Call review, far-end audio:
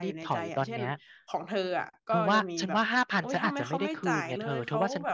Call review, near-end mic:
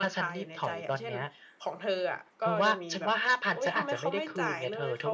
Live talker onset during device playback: none

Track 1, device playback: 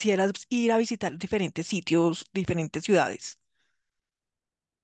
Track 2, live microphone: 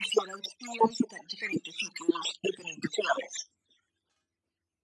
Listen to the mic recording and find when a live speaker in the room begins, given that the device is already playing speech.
none

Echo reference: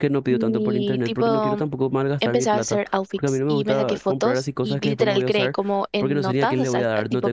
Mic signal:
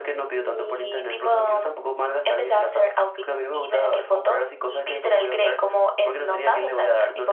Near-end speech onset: none

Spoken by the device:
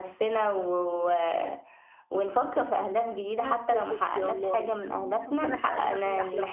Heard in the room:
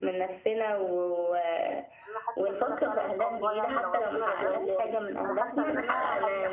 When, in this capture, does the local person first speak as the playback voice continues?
2 s

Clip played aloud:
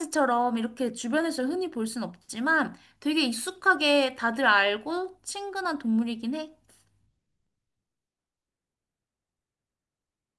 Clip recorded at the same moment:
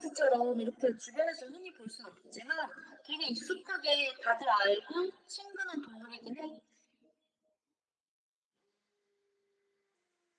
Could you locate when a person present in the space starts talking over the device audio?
none

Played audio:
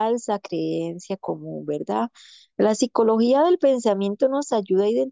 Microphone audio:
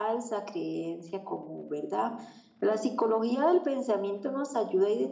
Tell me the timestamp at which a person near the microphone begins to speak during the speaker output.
none

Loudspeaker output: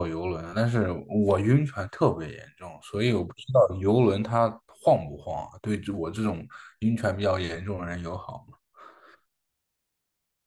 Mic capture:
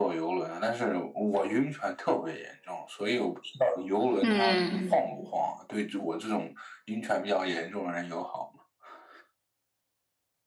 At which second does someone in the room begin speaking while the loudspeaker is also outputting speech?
4 s

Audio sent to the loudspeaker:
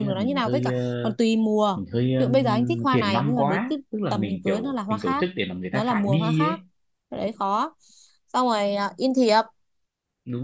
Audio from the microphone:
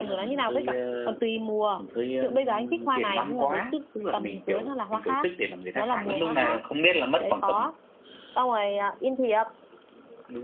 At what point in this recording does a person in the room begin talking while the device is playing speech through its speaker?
6 s

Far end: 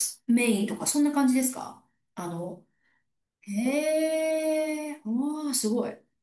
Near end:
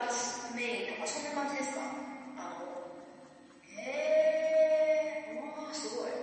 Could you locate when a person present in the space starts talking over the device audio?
none

